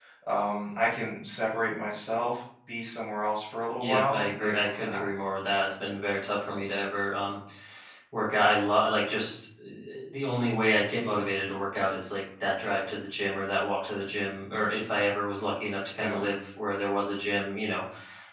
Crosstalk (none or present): present